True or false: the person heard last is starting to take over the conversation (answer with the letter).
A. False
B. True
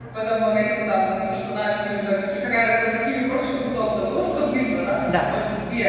A